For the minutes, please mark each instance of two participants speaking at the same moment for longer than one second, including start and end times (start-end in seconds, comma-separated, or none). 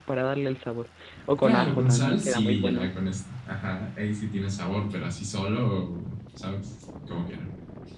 1.4-2.9